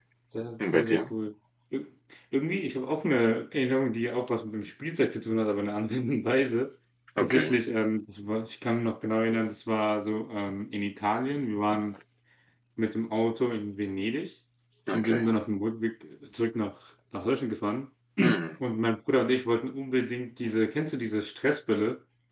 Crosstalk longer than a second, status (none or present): none